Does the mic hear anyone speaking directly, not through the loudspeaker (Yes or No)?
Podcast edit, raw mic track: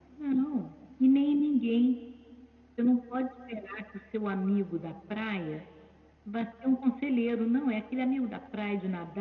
No